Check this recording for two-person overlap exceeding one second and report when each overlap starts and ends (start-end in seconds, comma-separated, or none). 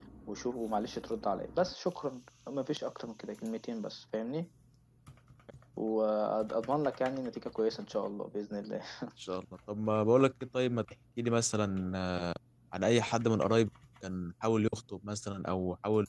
none